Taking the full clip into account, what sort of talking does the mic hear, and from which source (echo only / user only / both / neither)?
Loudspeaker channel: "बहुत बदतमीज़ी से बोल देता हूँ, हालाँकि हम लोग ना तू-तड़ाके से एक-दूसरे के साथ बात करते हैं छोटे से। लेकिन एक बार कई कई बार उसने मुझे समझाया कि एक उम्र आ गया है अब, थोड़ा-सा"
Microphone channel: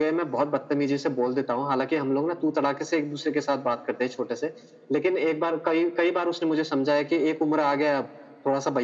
echo only